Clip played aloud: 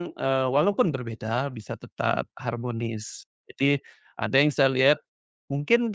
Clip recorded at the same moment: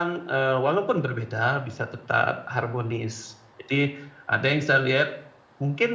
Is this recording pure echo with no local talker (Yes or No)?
Yes